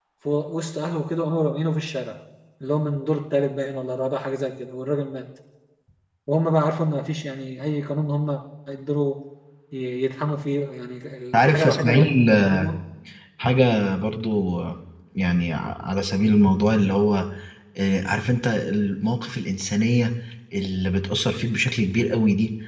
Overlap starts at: 11 s

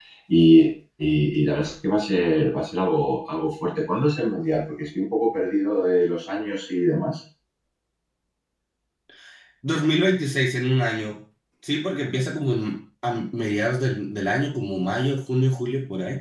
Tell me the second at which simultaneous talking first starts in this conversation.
none

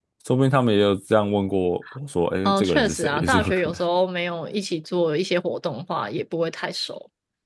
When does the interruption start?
2 s

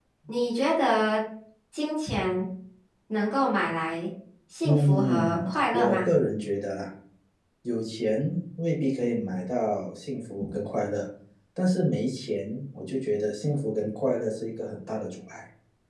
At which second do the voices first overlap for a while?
5 s

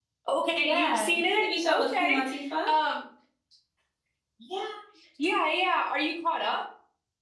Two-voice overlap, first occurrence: 1 s

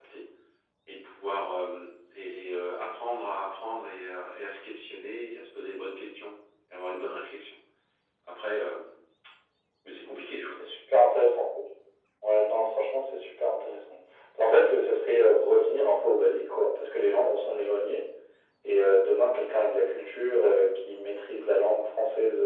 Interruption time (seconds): none

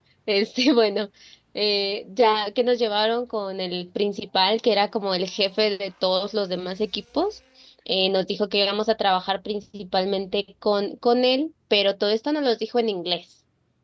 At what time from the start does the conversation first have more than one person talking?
none

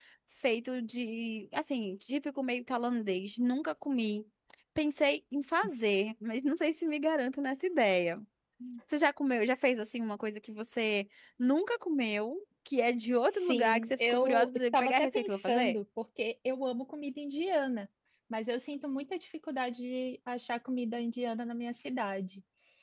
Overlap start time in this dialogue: 13 s

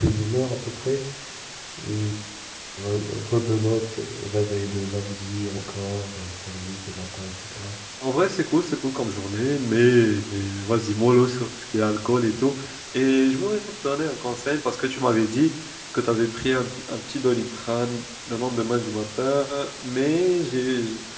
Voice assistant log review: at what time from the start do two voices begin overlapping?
none

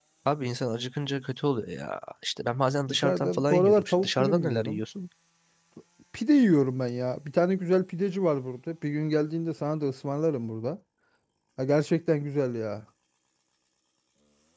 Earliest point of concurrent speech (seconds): 3 s

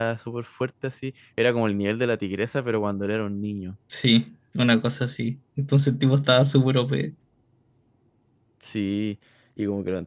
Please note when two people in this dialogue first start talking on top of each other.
none

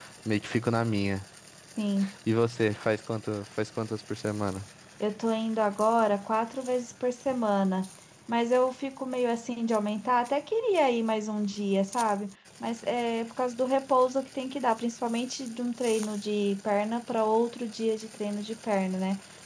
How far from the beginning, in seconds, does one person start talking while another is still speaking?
none

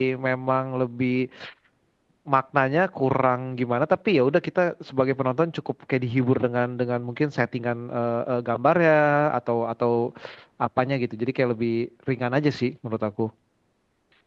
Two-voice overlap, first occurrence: none

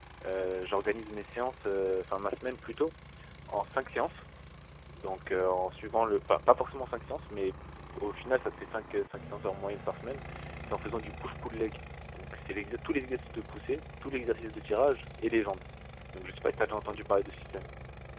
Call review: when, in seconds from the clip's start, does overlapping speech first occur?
none

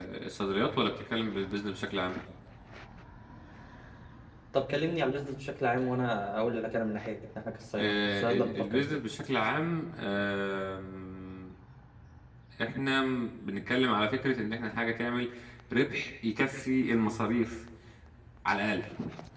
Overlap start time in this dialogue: 8 s

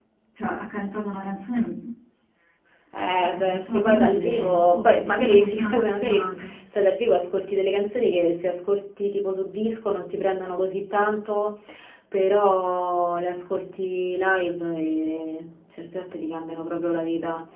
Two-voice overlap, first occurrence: 3 s

